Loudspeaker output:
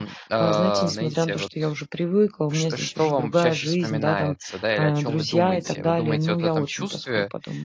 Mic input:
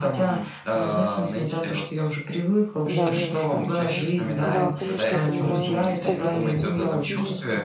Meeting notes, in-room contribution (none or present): present